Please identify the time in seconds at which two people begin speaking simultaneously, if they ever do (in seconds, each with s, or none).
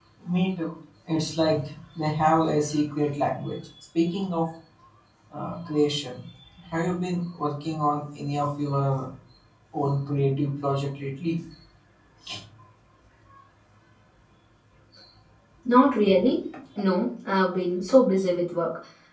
none